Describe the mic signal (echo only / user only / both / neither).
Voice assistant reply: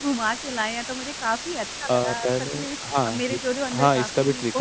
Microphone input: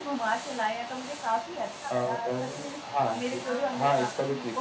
both